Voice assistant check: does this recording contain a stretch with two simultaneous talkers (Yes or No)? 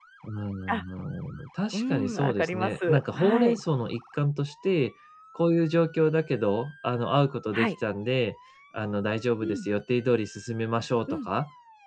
Yes